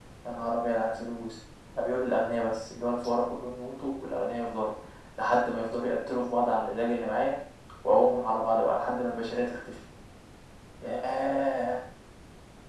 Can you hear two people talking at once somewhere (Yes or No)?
No